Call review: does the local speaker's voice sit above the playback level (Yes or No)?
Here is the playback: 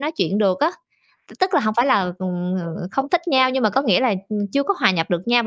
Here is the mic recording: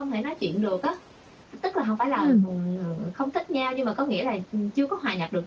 Yes